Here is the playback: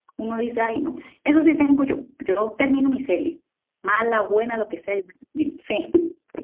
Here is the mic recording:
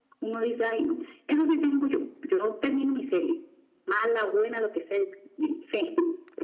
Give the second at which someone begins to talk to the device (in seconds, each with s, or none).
none